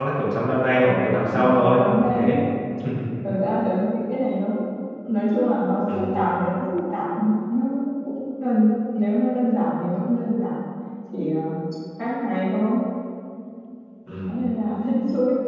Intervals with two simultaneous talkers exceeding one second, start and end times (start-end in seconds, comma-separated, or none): 0.8-2.4